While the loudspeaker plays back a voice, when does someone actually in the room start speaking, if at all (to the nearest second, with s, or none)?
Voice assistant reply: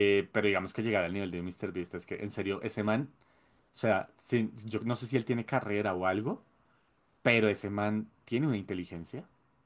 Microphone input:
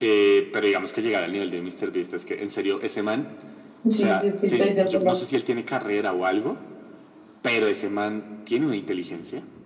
4 s